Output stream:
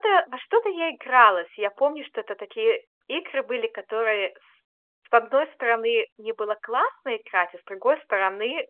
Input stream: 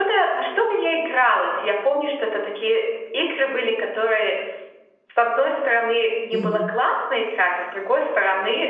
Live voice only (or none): Мгм.